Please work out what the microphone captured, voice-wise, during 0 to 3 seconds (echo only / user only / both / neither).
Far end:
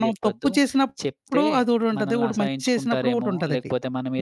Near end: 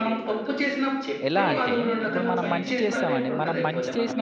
both